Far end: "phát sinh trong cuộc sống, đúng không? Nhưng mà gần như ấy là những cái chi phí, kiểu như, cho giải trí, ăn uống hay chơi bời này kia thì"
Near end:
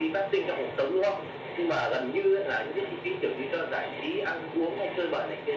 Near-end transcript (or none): none